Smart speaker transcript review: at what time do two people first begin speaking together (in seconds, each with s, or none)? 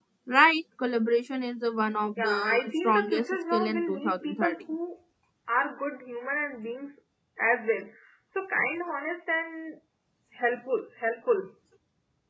2.2 s